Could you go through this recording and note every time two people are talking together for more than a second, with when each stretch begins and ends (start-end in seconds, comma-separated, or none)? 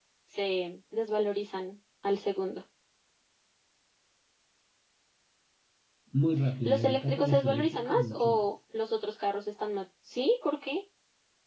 6.7-8.5